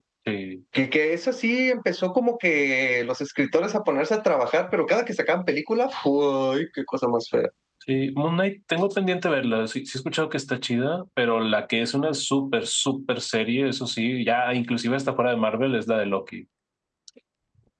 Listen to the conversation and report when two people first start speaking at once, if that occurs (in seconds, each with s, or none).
none